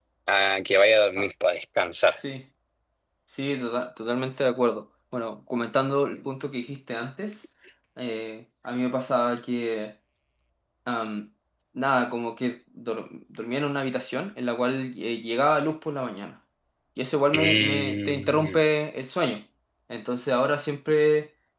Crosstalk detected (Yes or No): Yes